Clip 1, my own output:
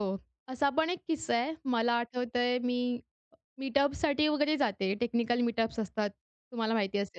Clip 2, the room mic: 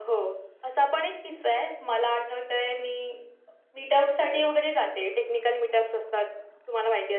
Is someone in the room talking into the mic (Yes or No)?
No